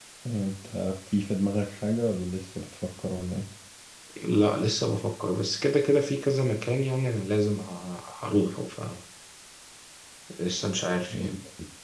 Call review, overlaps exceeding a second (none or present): none